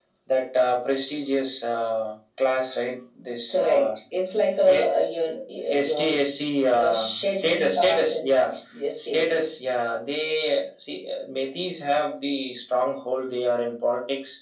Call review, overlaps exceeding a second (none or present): present